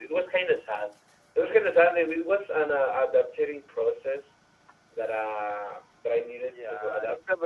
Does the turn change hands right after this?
Yes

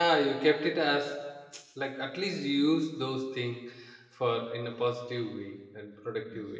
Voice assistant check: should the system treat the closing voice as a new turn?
Yes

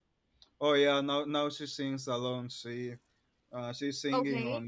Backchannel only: Yes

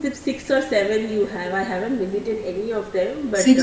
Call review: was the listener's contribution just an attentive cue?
No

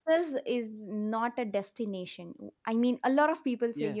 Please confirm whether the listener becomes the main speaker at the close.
No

